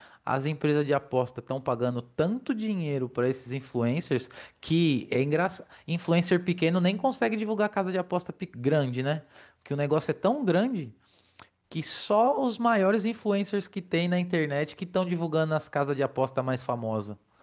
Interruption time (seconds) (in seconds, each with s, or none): none